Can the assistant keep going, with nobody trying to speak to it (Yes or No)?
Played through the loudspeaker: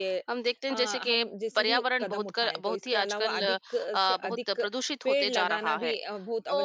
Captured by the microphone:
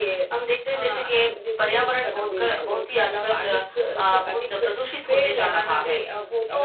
No